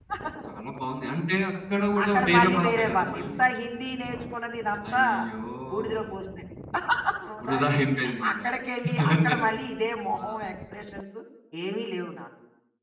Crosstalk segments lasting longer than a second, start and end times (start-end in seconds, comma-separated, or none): 2.0-3.4